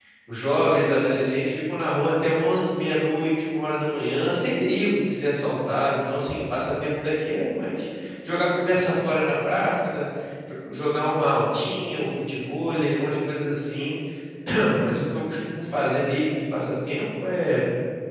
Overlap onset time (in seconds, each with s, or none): none